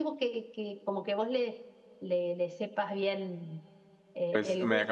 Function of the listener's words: taking over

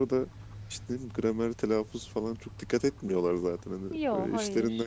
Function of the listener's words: listening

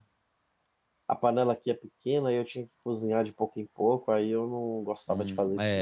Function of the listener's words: taking over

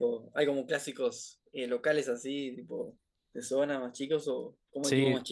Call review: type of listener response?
taking over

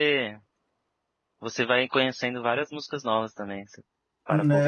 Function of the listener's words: taking over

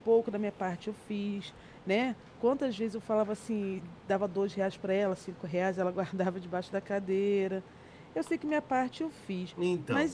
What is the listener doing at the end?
taking over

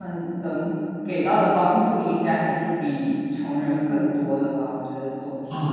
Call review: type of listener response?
taking over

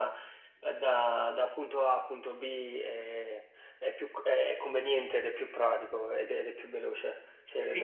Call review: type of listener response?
taking over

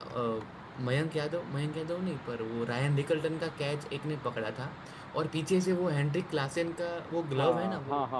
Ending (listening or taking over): taking over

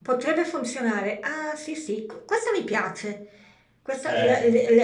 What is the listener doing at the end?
listening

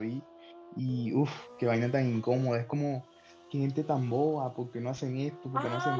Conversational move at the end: taking over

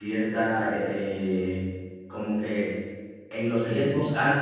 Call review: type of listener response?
listening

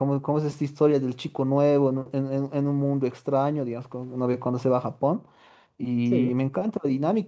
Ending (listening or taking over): listening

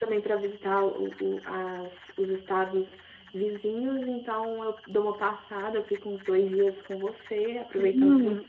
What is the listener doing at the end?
taking over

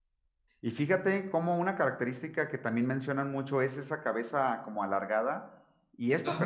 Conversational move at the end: listening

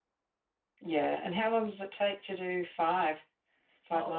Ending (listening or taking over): taking over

